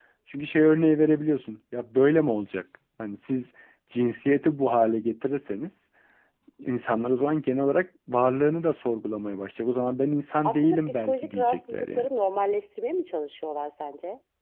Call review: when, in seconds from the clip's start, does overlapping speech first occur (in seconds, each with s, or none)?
10.4 s